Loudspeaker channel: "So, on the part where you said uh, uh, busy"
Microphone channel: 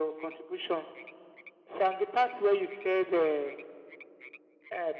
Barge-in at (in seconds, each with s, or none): none